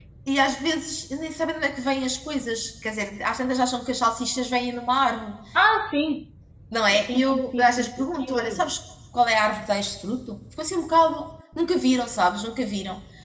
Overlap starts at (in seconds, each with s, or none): 7.0 s